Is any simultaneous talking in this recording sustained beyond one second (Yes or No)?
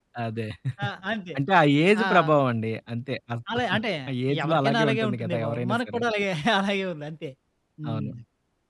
Yes